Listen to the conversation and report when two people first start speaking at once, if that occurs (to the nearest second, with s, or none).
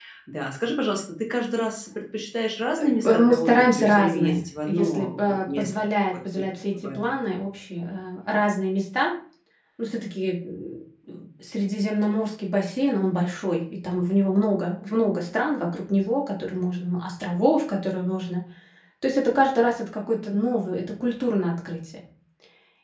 3 s